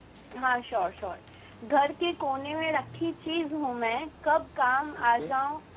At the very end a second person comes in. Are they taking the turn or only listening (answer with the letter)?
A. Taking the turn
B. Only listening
B